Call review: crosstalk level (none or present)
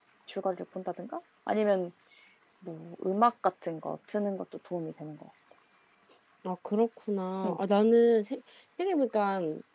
none